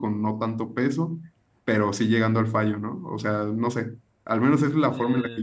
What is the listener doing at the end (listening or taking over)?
listening